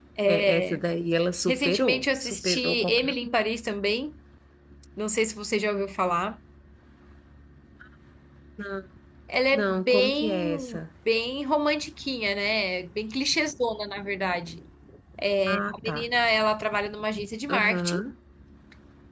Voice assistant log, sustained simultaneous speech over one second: present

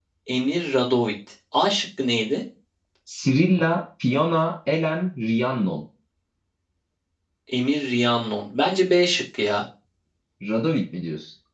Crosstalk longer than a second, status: none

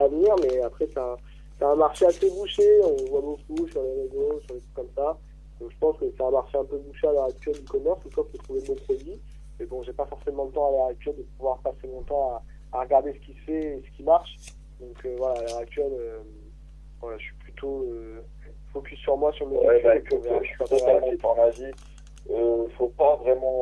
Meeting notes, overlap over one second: present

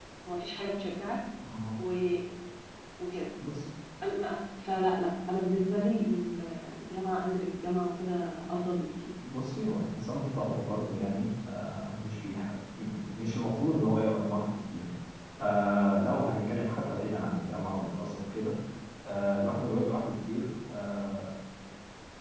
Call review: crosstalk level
none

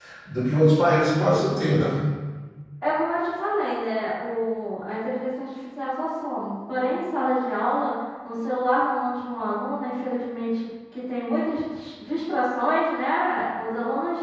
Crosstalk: none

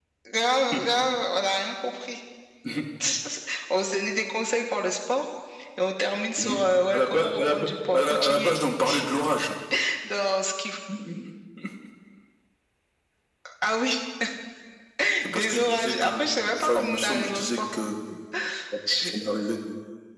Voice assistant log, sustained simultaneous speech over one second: present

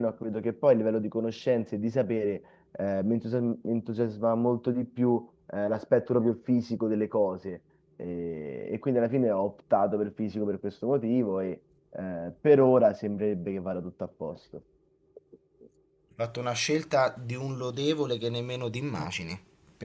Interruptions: none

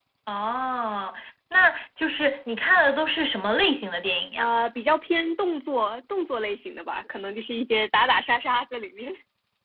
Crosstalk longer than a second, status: none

